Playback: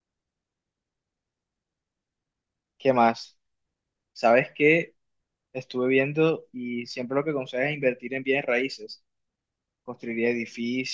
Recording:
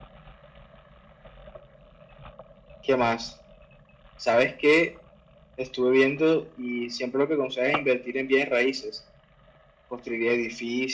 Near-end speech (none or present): none